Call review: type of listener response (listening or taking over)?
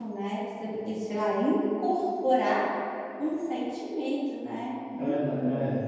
taking over